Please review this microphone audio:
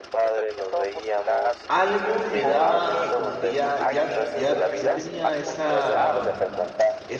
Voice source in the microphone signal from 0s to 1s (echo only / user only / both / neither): echo only